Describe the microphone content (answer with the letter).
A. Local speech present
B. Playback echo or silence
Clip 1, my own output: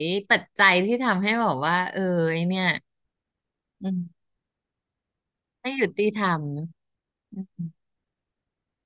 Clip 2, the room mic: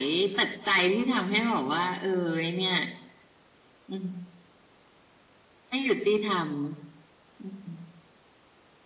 B